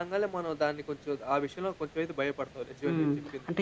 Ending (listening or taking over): taking over